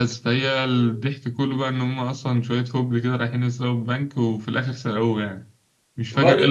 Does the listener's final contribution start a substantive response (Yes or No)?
Yes